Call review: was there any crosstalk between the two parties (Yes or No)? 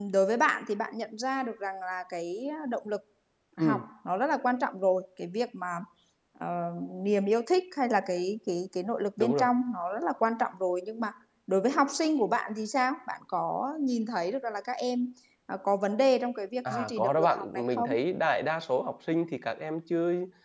Yes